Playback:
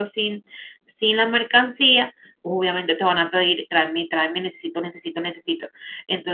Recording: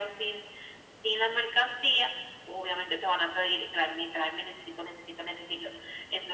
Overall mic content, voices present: echo only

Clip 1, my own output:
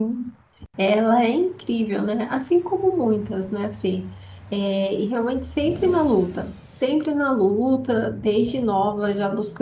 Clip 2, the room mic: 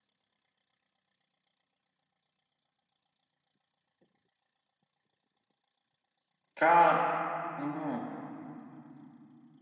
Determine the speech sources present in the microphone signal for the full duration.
user only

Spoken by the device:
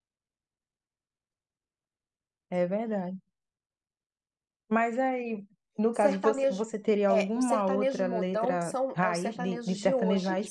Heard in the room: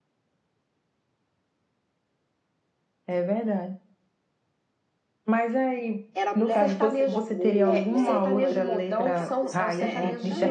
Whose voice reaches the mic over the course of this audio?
both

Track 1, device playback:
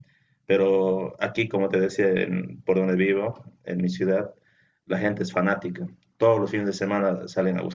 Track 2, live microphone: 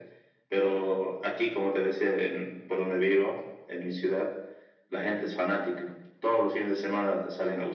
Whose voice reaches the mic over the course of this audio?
echo only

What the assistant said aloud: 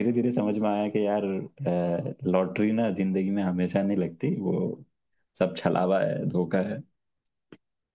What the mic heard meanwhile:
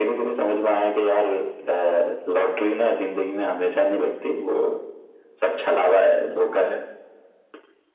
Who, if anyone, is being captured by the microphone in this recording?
echo only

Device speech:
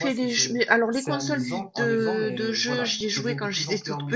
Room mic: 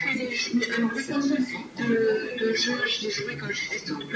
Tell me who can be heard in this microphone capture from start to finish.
echo only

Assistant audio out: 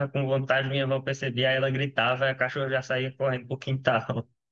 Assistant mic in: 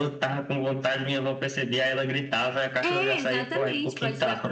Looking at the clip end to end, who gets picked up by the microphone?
both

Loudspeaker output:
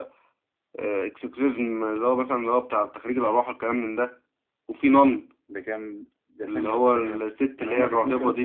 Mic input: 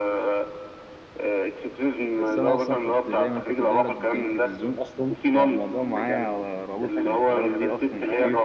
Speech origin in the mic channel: both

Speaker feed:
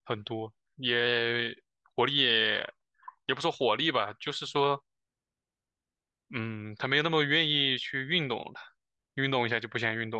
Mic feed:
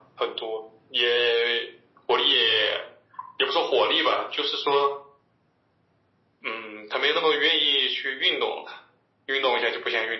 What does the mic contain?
echo only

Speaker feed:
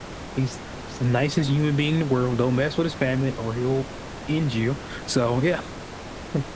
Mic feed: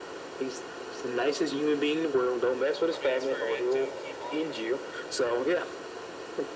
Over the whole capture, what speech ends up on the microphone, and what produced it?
both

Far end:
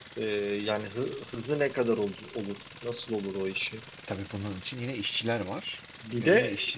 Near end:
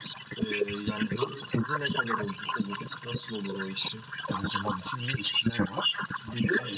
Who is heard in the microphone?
echo only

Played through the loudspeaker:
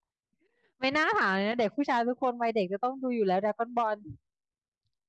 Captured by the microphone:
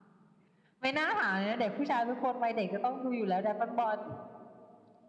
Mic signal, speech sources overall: echo only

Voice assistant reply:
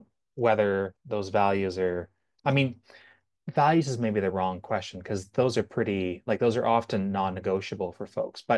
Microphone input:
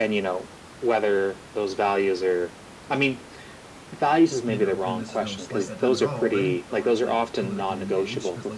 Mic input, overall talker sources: both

